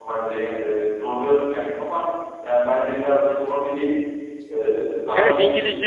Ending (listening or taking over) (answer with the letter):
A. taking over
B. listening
A